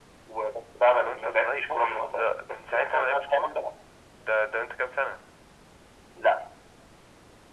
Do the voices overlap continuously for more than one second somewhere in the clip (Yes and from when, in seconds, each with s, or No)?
Yes, from 1.1 s